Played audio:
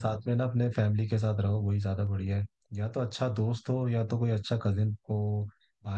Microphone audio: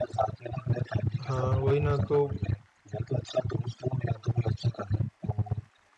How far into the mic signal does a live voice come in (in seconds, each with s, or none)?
1.2 s